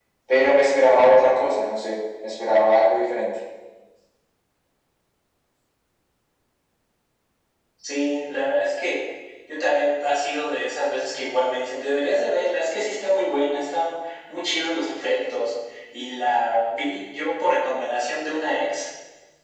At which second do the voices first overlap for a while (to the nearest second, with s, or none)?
none